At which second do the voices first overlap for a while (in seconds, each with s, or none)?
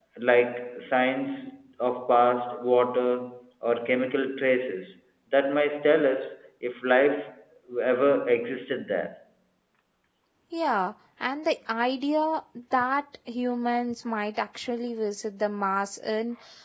none